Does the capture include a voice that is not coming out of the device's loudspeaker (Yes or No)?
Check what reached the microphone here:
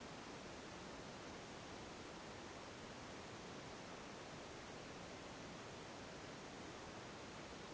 No